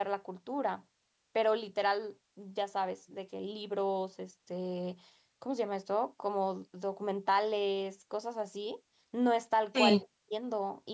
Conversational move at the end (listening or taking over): listening